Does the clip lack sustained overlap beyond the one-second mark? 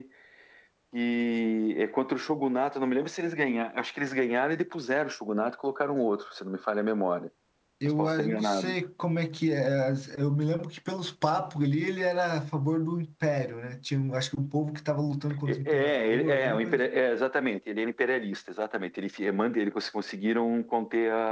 No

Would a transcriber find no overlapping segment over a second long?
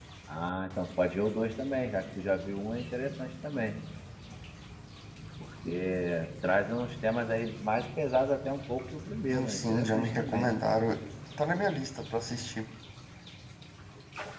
No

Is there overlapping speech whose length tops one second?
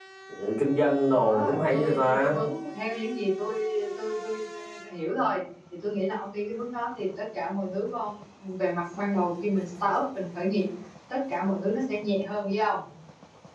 Yes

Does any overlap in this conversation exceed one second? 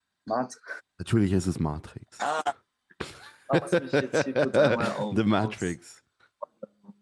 Yes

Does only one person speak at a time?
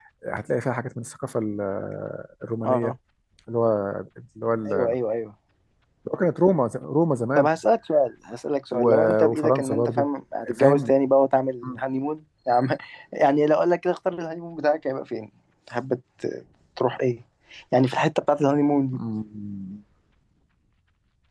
No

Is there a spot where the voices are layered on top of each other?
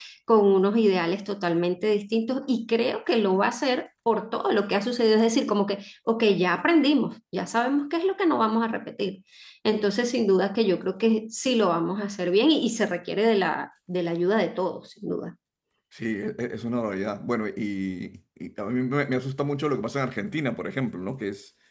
No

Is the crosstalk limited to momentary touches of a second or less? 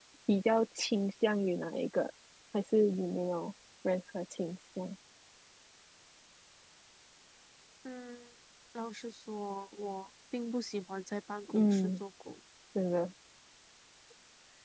Yes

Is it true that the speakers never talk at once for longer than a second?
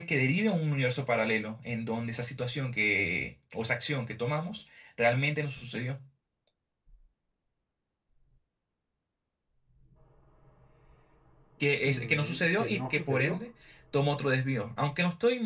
No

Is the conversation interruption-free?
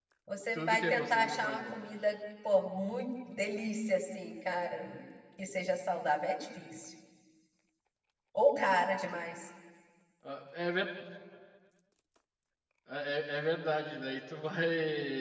No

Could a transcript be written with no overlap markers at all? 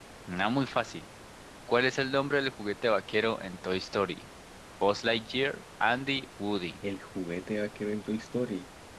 Yes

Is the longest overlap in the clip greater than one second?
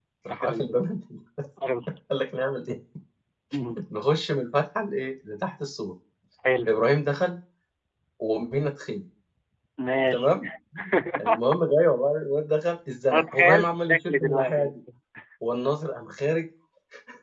Yes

